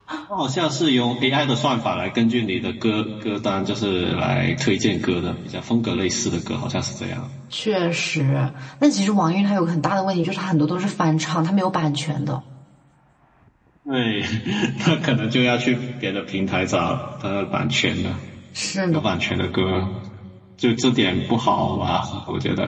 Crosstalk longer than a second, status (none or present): none